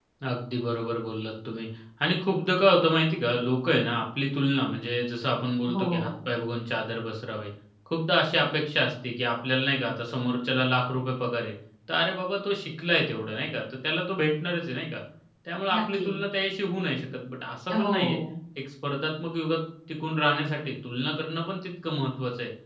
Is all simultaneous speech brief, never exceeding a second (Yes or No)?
Yes